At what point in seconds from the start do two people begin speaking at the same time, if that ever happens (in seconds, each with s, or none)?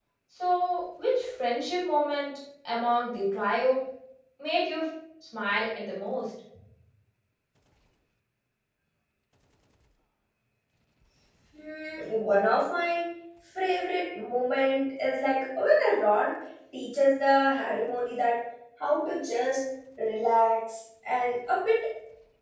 none